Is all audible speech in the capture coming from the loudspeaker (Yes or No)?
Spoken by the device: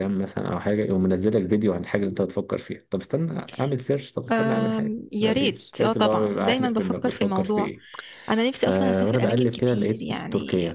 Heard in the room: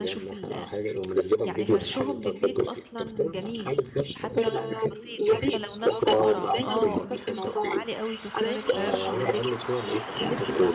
No